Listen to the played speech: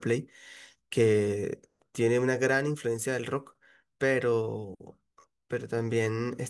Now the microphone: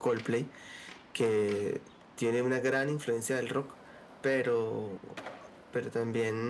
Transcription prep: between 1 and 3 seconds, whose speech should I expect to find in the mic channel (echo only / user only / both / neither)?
echo only